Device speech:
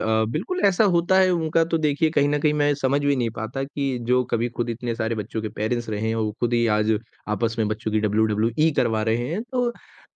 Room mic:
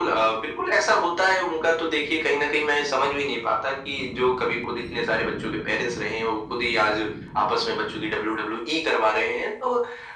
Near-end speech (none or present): none